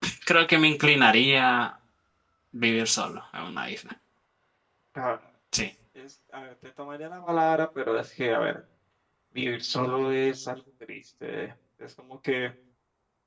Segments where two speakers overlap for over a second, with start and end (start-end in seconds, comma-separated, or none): none